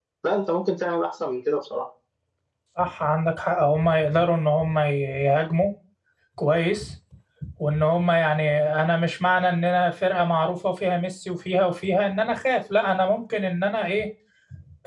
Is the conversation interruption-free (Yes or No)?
Yes